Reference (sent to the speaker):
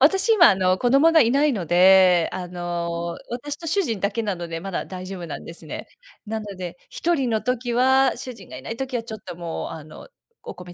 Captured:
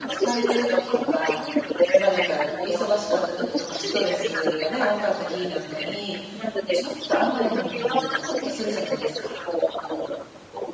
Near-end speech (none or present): present